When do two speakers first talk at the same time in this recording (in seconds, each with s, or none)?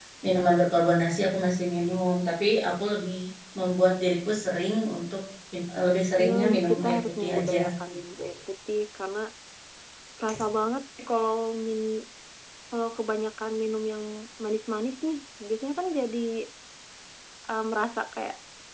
6.2 s